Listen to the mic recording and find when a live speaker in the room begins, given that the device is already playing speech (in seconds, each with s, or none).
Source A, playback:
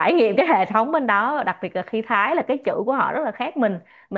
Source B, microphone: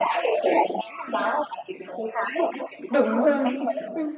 2.9 s